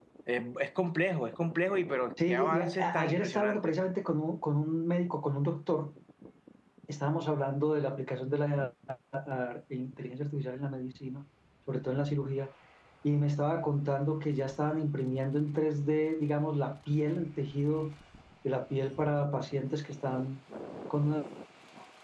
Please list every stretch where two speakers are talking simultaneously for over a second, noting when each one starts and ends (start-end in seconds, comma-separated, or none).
2.2-3.8